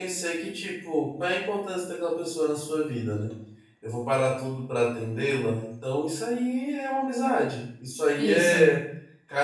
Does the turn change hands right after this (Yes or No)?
No